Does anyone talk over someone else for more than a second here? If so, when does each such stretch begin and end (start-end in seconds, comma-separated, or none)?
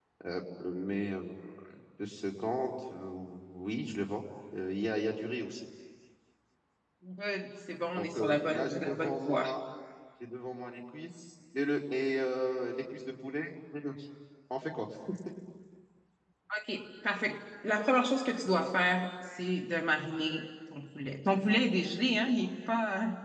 8.0-9.4